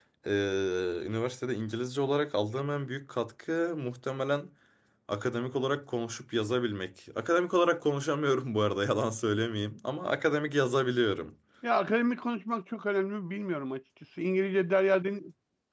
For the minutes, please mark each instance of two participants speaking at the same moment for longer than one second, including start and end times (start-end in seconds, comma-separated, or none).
none